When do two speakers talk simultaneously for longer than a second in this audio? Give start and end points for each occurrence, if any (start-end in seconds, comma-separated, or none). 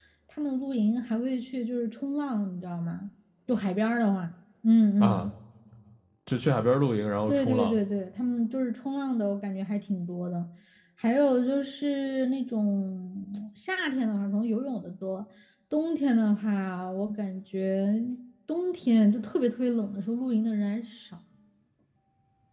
none